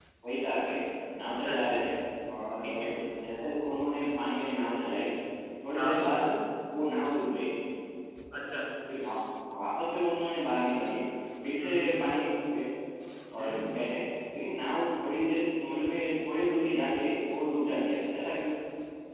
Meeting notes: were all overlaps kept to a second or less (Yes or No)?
Yes